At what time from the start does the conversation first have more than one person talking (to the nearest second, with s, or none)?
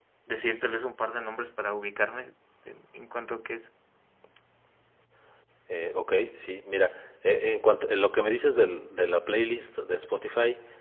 none